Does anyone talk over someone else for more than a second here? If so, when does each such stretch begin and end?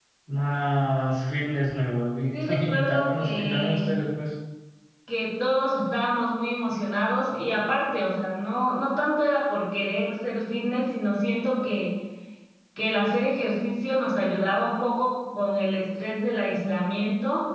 2.3-3.8

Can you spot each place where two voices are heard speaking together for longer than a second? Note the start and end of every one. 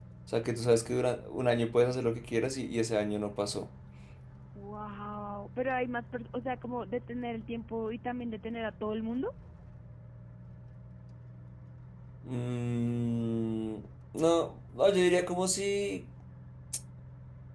none

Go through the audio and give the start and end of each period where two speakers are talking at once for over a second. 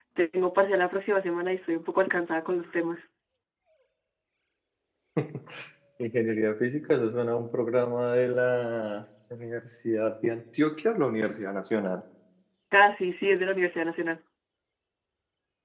none

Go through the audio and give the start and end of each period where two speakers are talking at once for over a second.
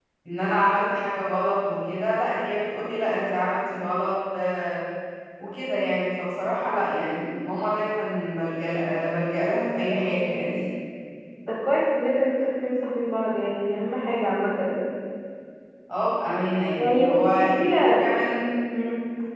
16.8-18.0

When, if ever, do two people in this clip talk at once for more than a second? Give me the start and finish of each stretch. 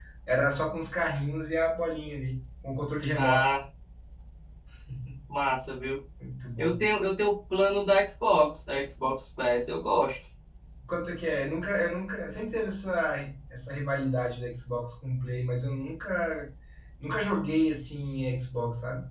none

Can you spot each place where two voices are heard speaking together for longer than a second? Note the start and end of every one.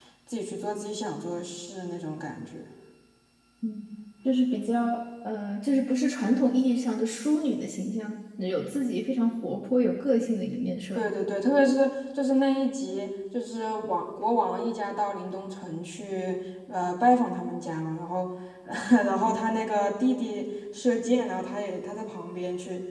none

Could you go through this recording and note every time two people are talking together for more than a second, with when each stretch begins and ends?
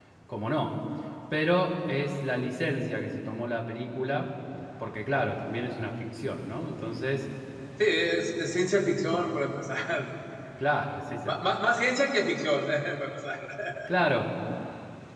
none

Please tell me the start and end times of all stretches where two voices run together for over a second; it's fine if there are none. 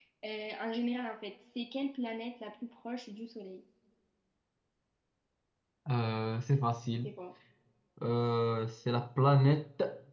none

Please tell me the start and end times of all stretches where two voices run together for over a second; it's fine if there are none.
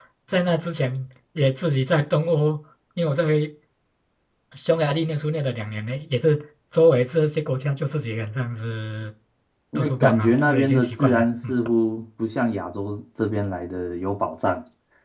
9.8-11.5

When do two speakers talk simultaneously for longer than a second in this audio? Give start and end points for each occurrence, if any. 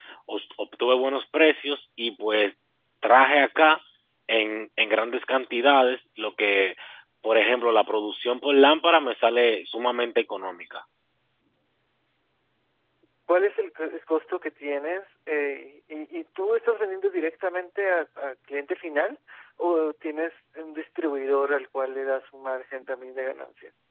none

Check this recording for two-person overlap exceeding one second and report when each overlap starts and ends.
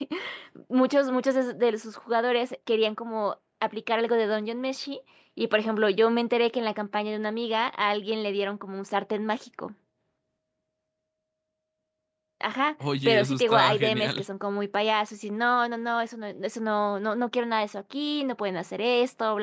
13.1-14.2

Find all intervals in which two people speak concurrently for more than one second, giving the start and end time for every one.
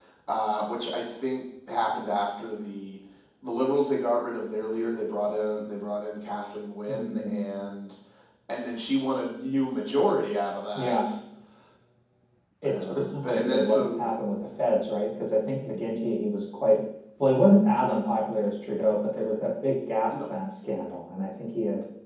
12.6-14.5

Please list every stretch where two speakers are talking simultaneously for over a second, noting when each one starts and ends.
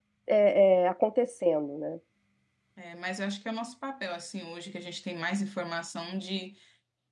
none

